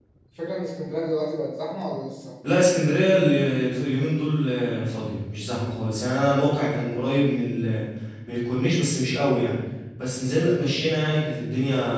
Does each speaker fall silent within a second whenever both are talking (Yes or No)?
Yes